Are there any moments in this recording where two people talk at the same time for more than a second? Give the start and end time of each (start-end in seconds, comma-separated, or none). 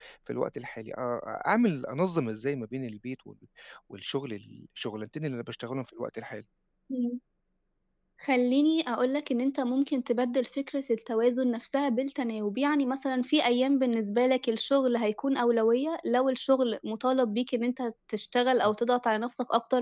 none